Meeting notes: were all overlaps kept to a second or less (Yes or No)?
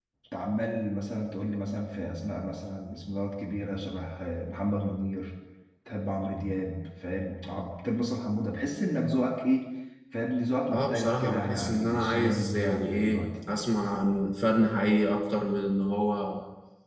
No